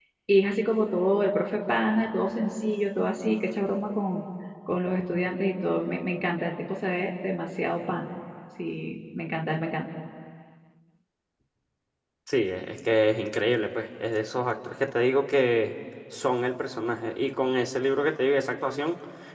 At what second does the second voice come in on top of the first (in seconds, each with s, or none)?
none